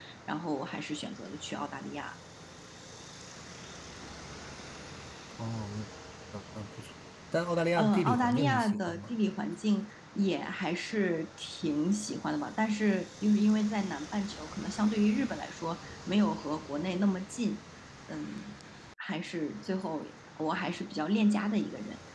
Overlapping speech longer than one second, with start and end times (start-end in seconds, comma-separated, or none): 7.8-9.1